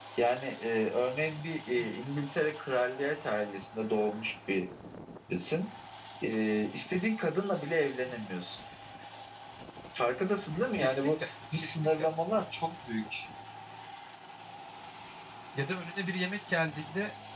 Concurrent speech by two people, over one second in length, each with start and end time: none

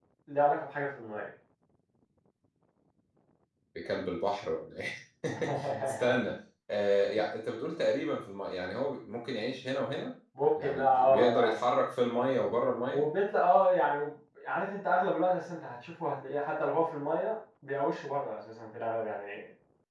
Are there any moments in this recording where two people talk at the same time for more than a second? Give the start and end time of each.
10.6-11.8

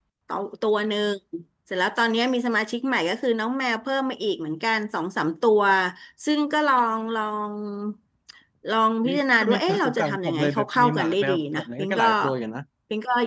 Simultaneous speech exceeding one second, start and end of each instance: 9.0-12.1

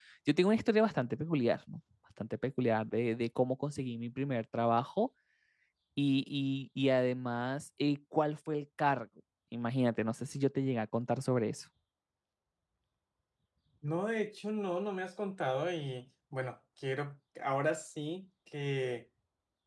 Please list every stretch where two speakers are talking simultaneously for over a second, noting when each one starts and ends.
none

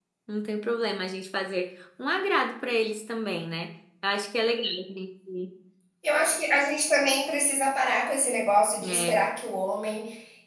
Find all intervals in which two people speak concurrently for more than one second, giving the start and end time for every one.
none

